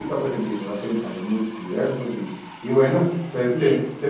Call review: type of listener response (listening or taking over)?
listening